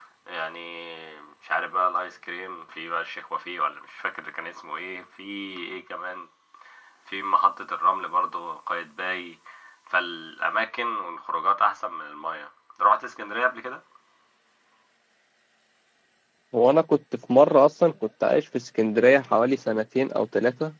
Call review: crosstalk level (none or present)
none